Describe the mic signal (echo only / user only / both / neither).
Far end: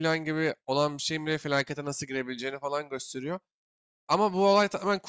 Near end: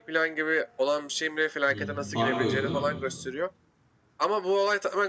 both